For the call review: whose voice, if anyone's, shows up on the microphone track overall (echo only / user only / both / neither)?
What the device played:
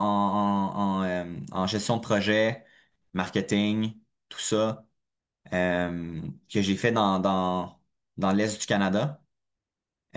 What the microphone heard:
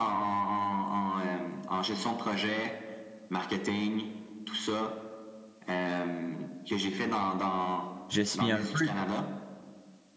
both